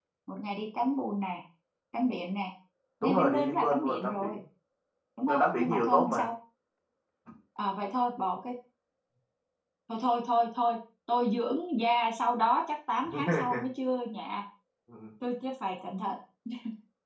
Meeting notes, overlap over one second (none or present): present